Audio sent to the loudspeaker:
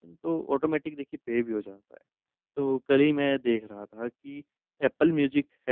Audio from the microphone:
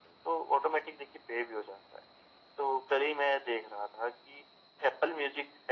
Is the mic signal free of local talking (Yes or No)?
Yes